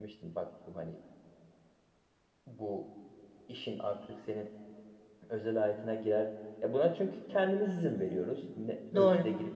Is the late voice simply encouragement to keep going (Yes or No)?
Yes